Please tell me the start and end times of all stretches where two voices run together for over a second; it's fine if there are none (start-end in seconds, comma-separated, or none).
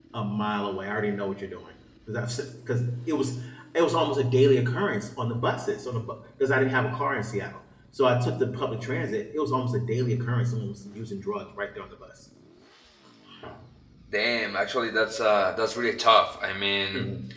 none